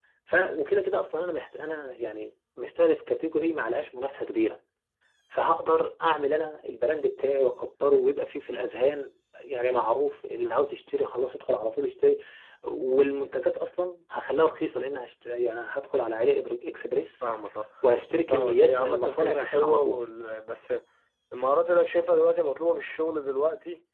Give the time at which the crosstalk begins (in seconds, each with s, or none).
18.3 s